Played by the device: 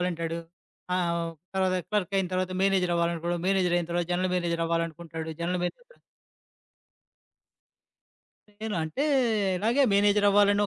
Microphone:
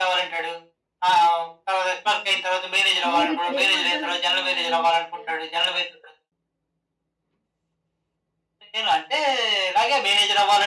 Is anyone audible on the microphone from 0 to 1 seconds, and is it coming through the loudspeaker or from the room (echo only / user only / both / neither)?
echo only